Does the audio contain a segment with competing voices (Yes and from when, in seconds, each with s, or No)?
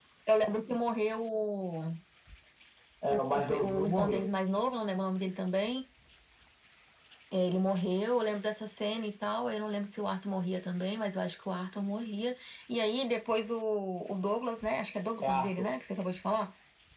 Yes, from 3.1 s